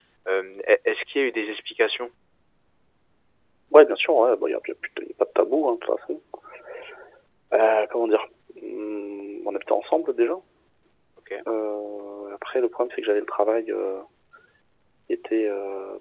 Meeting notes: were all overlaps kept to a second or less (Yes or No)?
Yes